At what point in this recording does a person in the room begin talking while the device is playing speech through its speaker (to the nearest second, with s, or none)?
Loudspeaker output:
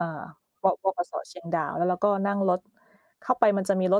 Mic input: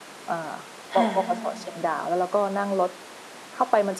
1 s